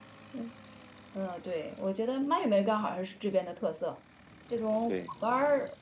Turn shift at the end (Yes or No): No